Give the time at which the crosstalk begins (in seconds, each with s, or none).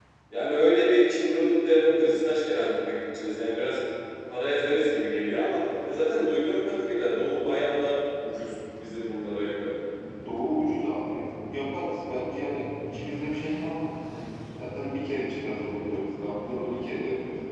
none